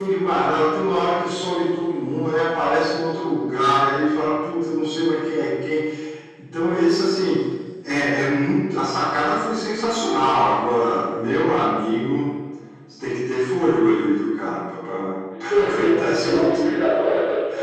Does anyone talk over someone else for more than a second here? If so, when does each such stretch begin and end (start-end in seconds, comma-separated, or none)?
15.6-16.8